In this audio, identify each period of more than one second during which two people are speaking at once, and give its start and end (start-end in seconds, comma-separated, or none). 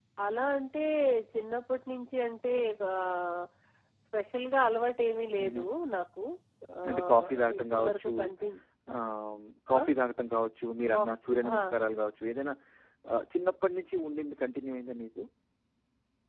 6.9-8.1